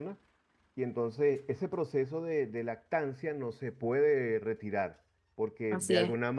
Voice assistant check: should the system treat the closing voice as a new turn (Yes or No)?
No